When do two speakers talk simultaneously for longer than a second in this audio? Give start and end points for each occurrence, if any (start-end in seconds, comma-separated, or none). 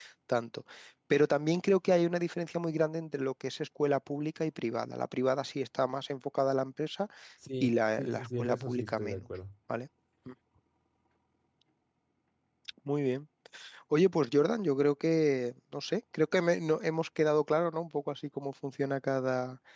7.6-9.2